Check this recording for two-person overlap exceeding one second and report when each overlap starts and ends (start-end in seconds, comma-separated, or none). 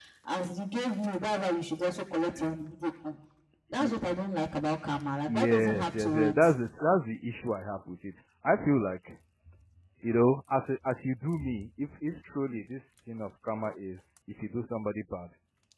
5.3-6.6